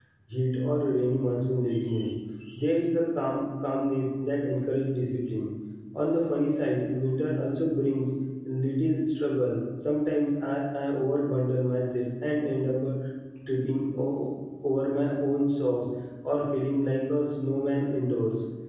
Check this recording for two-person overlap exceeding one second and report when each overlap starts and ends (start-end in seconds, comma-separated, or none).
none